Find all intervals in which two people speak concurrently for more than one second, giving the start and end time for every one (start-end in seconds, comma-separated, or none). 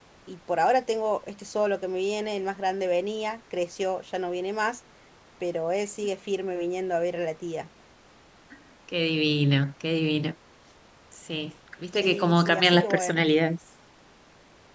11.9-13.2